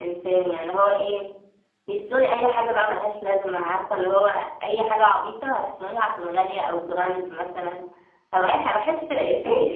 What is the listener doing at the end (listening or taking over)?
taking over